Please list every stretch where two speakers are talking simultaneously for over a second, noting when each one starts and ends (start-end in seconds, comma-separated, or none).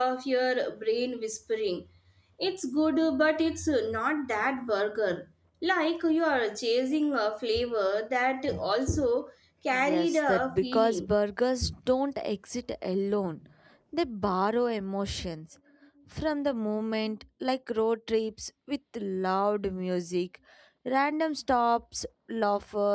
9.7-11.1